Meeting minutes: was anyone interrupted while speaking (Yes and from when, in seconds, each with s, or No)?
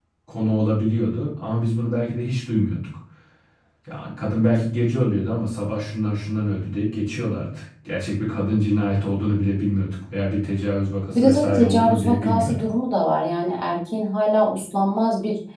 Yes, from 11.1 s